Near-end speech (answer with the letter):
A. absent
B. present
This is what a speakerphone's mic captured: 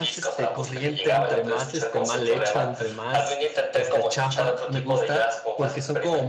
B